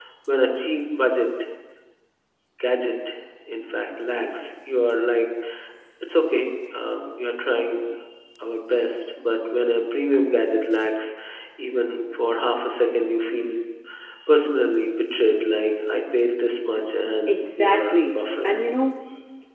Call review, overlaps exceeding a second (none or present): present